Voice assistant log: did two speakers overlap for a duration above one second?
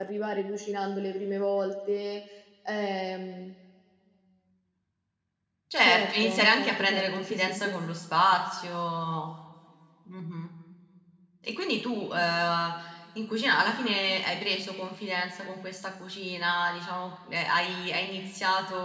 Yes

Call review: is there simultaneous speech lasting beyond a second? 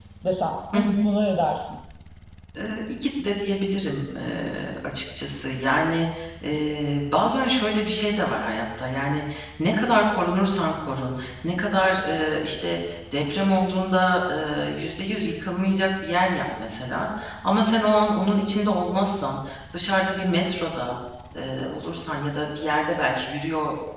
No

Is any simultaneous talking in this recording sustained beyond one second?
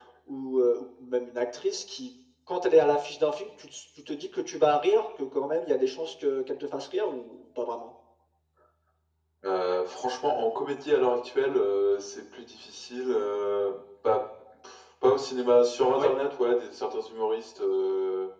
No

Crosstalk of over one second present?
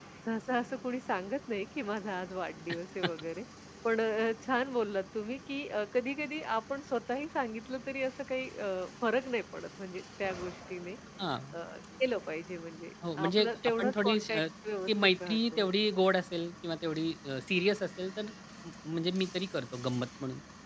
Yes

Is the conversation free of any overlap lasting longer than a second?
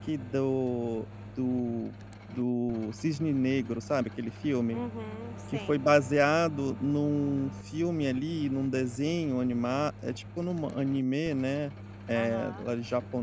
Yes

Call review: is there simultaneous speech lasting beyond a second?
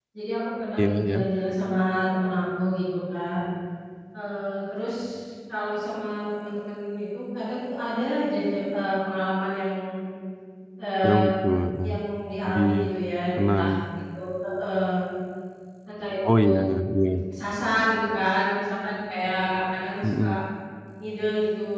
No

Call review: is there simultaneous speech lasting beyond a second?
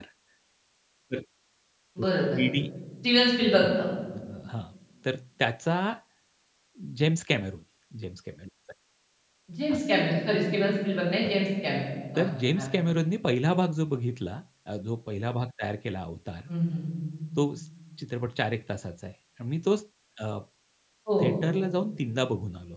No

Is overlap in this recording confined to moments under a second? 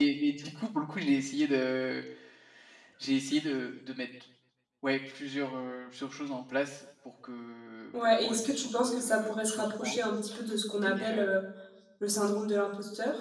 No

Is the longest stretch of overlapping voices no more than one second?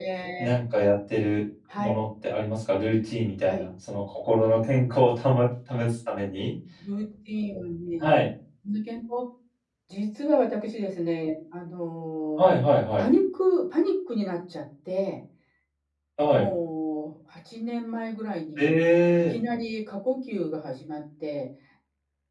Yes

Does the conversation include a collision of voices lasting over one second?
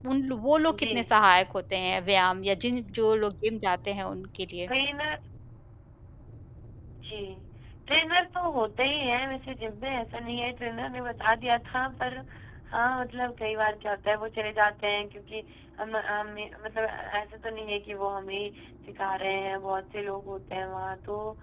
No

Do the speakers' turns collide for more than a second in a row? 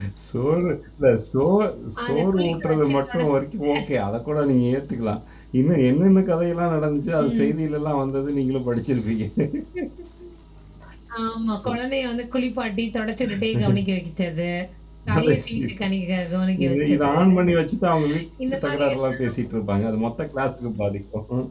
Yes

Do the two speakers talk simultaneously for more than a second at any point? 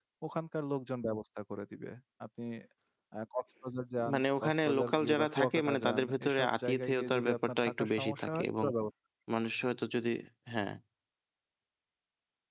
Yes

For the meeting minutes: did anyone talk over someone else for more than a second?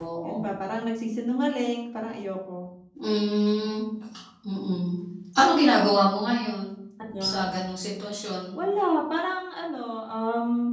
No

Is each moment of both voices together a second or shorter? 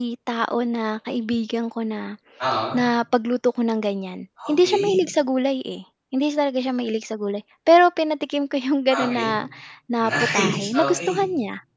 No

